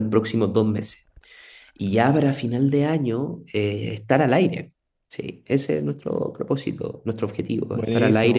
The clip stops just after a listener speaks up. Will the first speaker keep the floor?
Yes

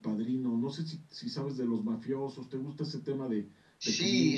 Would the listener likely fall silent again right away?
No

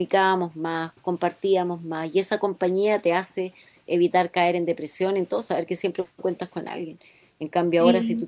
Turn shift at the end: No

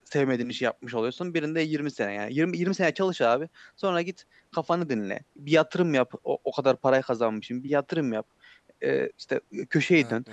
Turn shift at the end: No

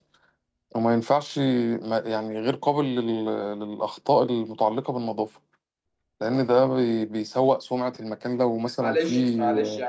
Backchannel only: No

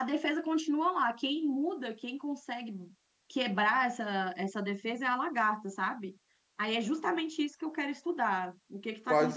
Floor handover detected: Yes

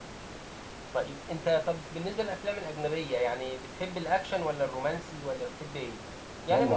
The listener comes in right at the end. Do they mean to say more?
Yes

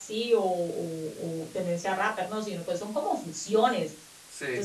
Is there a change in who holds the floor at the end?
No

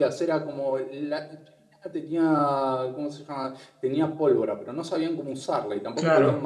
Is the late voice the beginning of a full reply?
No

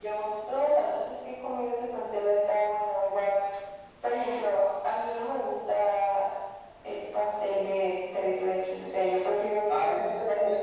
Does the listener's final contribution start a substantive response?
Yes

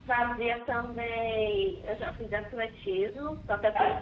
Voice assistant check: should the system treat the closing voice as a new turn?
No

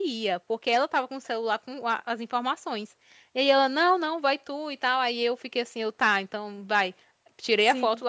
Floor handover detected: No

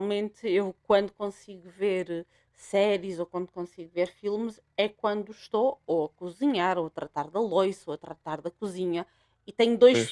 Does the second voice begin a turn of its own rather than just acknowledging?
No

